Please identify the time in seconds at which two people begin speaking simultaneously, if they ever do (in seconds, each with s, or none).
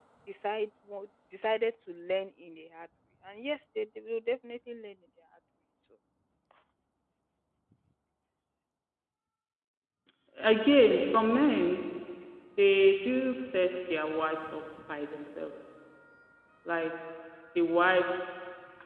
none